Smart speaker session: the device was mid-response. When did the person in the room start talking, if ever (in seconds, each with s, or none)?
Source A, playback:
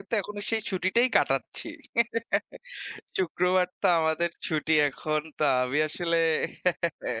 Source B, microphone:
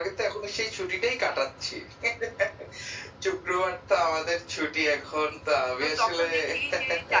5.8 s